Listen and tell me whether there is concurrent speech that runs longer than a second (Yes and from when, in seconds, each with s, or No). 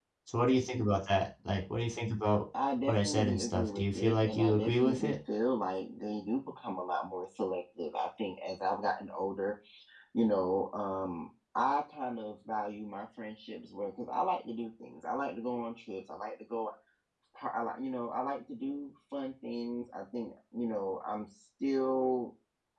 Yes, from 2.9 s